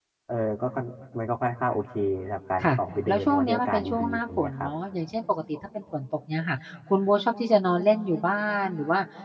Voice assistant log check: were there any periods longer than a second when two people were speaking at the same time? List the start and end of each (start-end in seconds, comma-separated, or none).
3.1-4.7